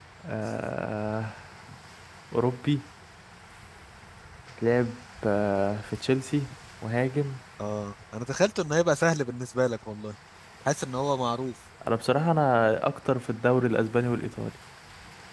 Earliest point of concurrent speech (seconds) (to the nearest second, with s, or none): none